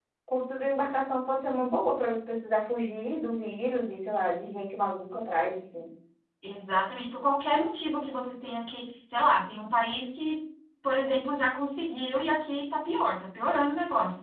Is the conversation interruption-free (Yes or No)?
Yes